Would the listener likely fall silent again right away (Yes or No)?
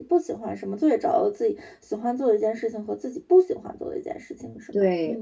No